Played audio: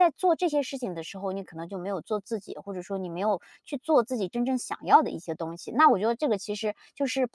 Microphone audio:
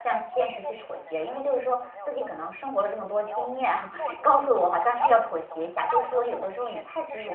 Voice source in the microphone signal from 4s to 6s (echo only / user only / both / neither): both